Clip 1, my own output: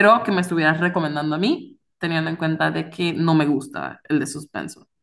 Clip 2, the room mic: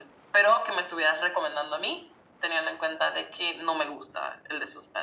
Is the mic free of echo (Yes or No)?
No